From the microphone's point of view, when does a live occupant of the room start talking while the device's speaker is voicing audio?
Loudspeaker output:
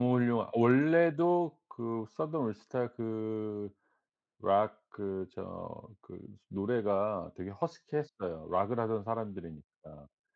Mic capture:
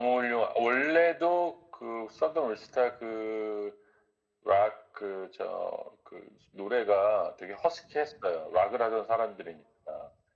none

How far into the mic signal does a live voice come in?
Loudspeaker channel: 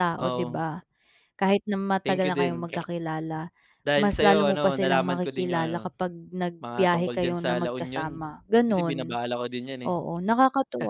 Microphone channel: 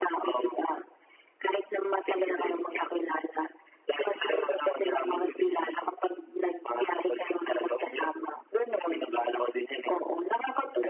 none

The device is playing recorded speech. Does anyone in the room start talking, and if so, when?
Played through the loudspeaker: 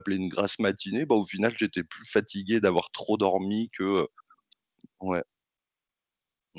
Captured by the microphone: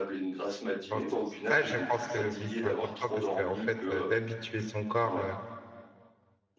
1 s

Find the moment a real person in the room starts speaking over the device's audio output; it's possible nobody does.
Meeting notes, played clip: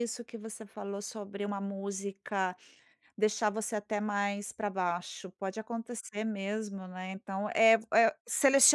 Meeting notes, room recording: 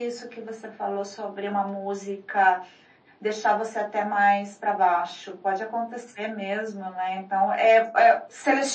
none

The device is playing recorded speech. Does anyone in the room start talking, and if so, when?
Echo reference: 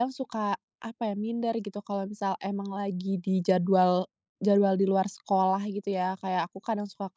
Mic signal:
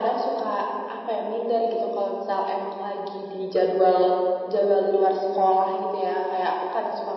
none

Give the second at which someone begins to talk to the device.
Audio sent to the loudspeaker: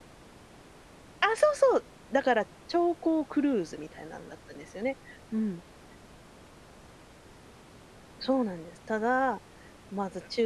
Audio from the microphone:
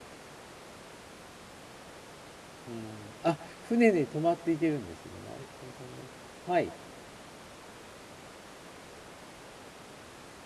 3 s

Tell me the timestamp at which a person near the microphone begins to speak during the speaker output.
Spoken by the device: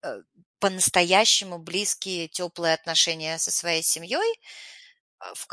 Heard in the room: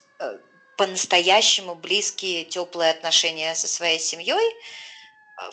none

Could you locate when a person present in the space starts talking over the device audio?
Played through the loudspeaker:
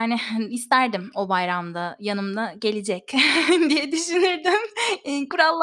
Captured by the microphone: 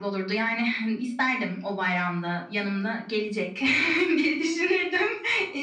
none

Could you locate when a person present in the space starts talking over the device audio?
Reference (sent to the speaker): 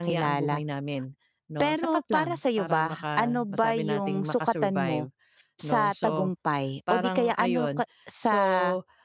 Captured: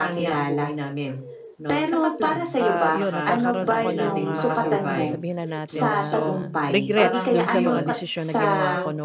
3 s

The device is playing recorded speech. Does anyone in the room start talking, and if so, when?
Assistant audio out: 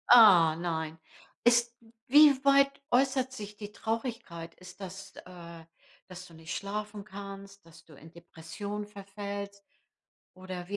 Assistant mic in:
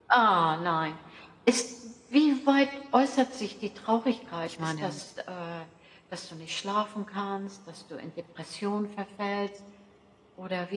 4 s

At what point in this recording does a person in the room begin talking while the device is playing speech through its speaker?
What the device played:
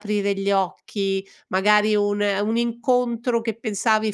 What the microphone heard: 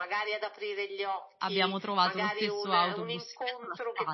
1 s

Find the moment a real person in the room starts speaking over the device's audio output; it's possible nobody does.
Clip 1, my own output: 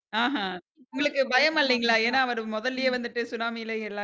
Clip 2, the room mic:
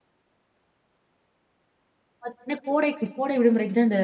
2 s

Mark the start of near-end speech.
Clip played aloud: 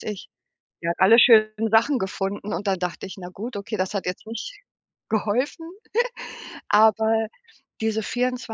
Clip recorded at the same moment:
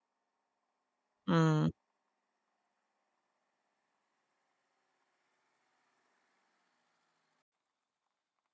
1 s

